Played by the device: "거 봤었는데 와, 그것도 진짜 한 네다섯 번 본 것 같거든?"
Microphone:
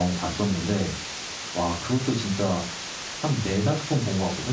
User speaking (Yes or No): No